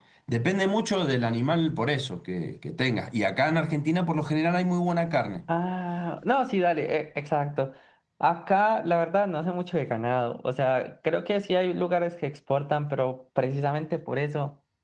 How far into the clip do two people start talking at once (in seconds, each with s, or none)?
none